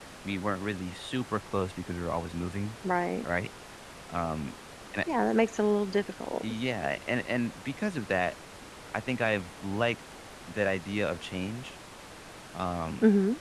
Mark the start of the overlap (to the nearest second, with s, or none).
none